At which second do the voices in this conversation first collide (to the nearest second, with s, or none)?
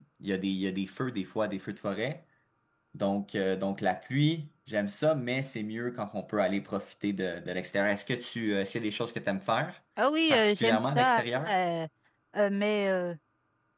10 s